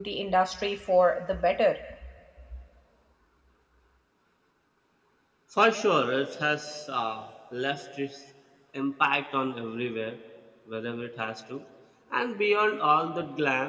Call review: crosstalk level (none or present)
none